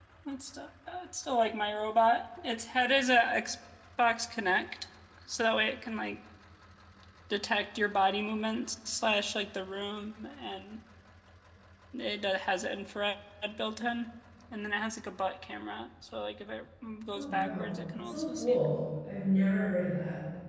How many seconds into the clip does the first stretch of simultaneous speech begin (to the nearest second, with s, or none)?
17 s